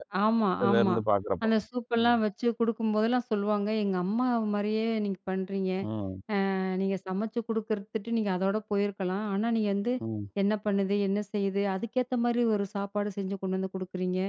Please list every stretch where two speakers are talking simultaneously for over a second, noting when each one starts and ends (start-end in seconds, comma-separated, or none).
none